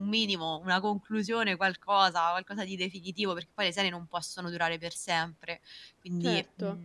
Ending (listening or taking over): taking over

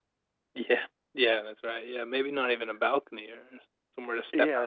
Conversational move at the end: taking over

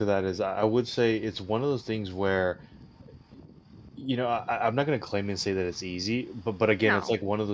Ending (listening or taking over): listening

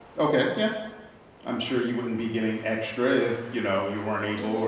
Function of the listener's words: taking over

